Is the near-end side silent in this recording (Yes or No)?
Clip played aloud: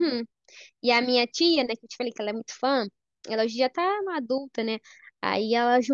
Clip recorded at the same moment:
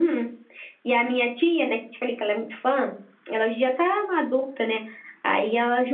Yes